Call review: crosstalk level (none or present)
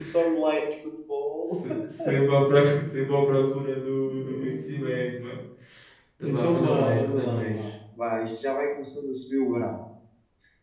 present